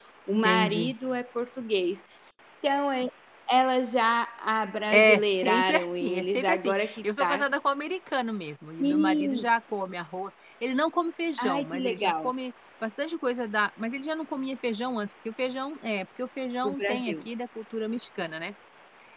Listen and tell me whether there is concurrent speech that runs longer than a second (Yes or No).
Yes